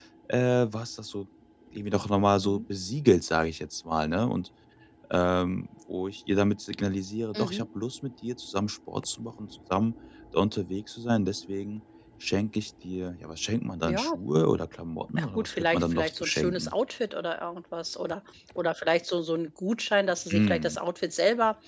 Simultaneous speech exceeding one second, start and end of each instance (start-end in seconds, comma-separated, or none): 15.2-16.7